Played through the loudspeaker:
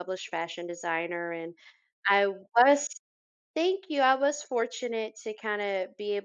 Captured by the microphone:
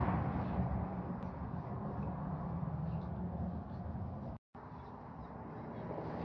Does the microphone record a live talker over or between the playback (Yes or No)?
No